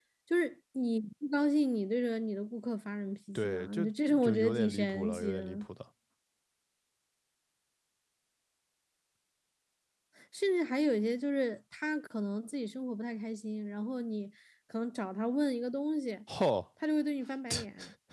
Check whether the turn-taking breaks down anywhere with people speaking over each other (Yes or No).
Yes